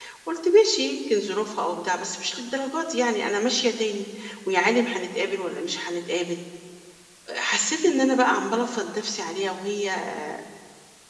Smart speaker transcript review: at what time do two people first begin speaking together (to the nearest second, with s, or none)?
none